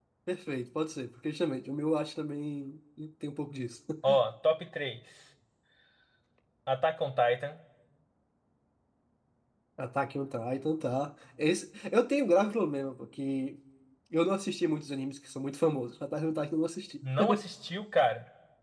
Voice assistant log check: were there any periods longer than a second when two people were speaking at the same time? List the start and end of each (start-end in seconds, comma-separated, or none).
none